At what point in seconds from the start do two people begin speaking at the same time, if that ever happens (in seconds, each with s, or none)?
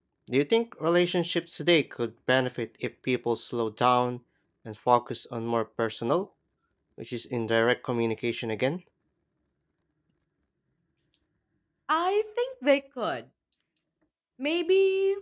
none